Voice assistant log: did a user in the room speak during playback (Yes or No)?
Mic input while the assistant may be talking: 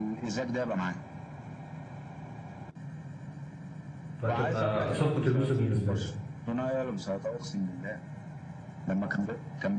Yes